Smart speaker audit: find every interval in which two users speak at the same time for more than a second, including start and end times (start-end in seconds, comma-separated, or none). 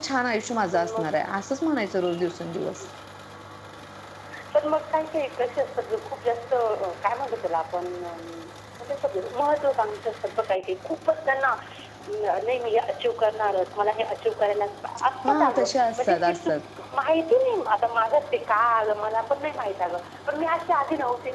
15.2-16.5